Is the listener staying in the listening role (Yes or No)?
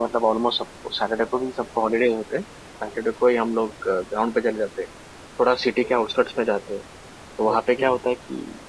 Yes